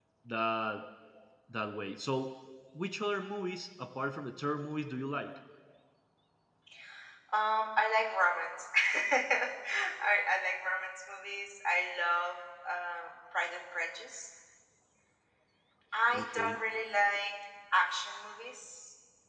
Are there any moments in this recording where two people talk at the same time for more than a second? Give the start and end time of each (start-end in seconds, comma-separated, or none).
none